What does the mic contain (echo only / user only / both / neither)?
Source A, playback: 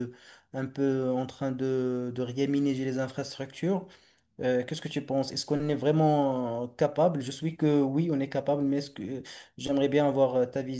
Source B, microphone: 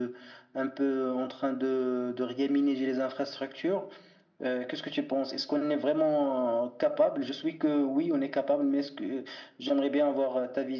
echo only